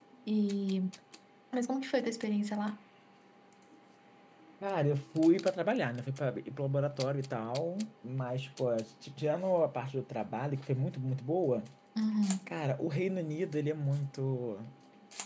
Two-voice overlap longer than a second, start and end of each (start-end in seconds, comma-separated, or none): none